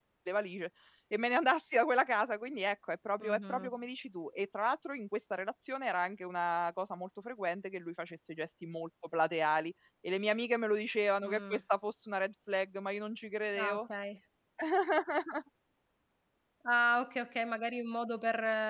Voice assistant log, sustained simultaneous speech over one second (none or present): none